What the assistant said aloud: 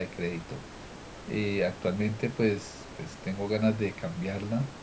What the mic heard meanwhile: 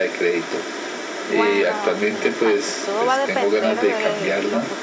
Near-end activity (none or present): present